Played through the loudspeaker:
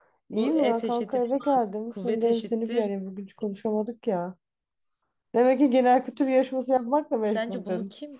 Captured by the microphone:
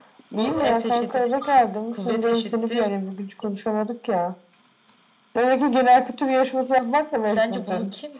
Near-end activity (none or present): none